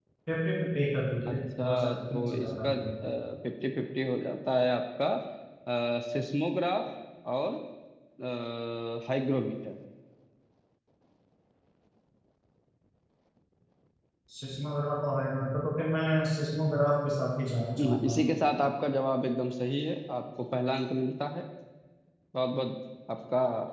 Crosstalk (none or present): present